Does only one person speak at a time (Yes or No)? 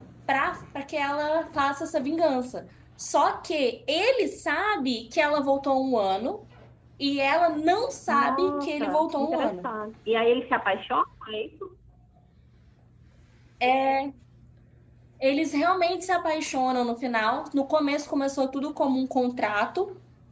No